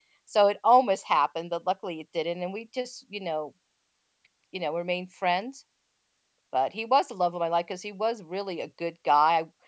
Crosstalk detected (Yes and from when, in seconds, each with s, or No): No